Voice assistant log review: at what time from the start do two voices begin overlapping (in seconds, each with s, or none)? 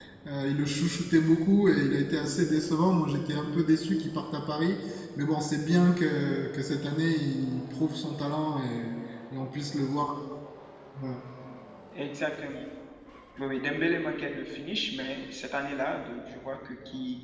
none